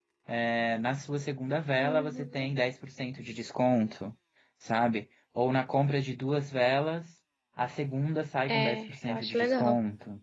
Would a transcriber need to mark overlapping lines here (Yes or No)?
Yes